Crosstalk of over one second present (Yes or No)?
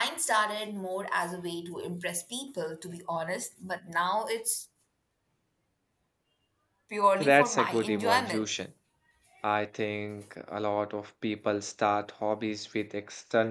Yes